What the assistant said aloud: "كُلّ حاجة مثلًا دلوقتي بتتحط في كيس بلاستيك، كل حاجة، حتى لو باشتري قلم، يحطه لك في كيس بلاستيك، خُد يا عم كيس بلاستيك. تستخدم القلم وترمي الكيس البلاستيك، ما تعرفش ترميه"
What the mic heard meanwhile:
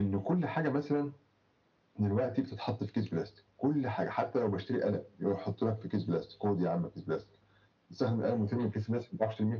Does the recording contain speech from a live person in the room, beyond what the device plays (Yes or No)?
No